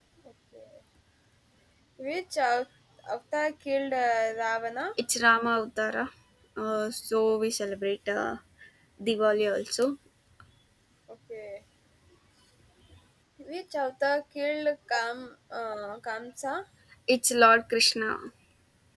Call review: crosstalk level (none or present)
none